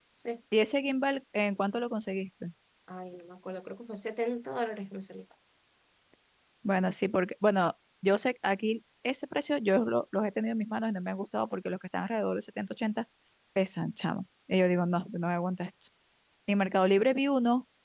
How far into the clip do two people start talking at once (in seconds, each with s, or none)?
none